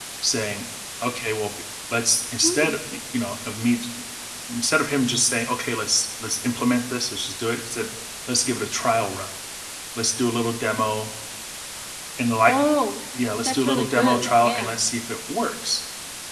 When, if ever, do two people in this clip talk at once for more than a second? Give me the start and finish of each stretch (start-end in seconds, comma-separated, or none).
13.4-14.7